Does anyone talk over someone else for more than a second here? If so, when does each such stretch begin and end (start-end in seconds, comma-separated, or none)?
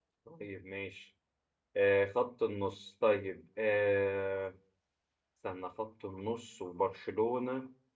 none